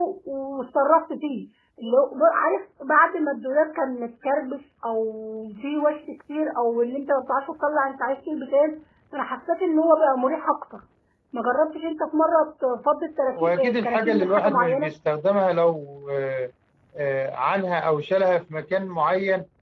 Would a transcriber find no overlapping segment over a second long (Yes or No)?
No